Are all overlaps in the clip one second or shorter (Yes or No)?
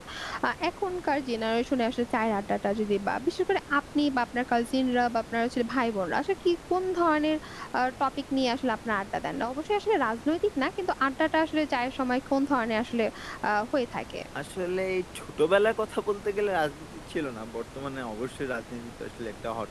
Yes